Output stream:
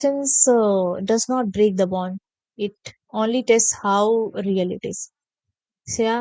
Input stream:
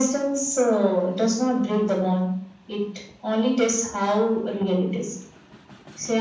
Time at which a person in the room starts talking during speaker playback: none

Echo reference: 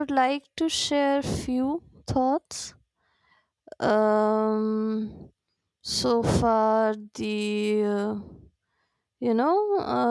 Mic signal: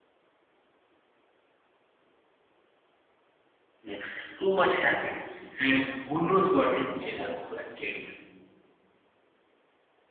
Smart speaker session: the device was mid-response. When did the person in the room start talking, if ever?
3.8 s

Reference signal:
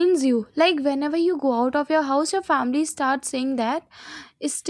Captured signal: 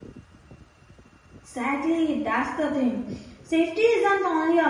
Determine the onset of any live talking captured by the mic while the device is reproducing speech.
1.4 s

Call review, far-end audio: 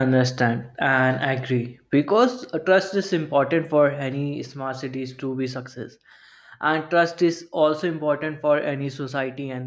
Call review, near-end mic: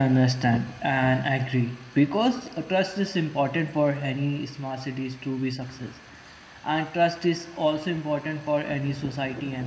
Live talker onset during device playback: none

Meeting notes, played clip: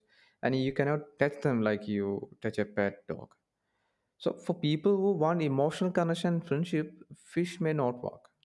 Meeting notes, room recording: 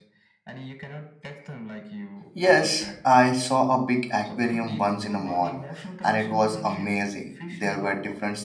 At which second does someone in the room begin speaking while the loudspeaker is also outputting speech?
2.3 s

